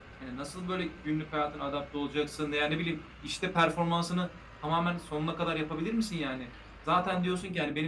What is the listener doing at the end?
listening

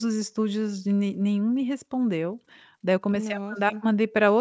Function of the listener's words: listening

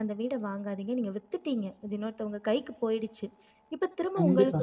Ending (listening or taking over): listening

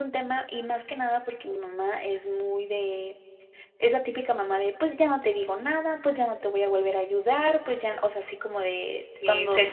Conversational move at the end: taking over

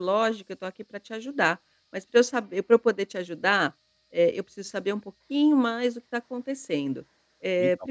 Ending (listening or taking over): listening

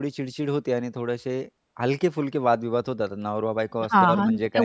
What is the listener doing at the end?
taking over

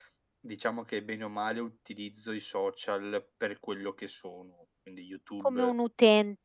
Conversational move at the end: taking over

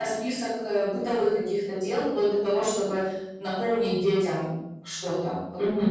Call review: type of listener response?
taking over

